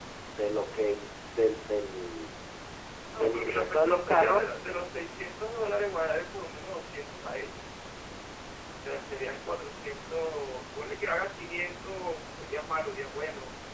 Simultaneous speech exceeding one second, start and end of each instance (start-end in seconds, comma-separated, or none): 3.1-4.4